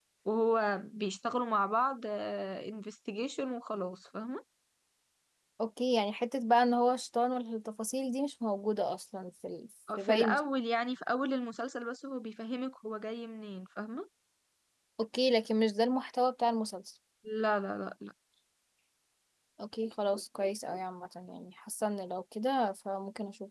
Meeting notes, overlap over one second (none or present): none